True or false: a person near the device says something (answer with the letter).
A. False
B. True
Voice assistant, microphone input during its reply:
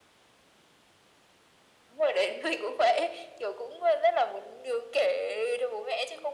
A